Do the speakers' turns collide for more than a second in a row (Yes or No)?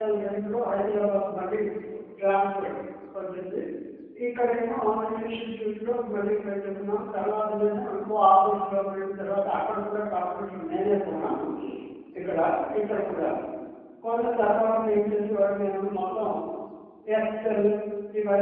No